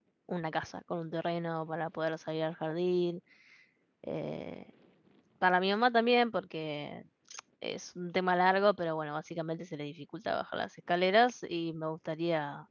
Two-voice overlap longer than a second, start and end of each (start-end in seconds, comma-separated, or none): none